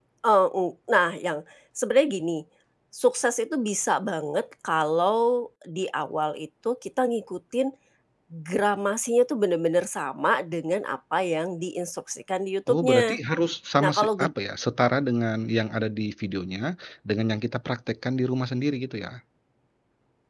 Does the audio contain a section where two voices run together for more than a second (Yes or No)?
No